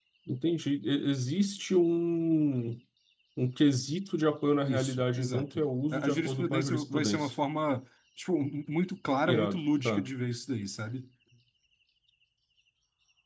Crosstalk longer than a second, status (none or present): present